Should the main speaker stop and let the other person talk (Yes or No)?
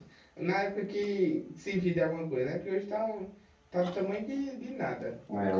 Yes